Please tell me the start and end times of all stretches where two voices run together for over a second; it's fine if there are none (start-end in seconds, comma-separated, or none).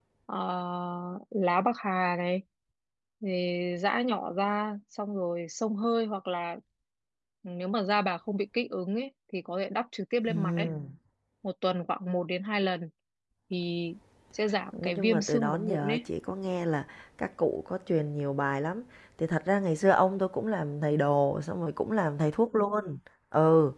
14.8-16.0